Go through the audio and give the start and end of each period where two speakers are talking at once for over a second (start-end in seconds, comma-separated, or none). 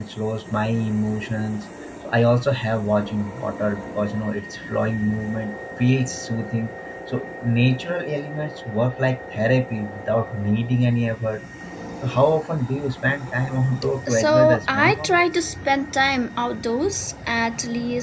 14.1-15.5